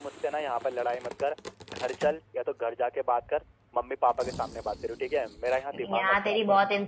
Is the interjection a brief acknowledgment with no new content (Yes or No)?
No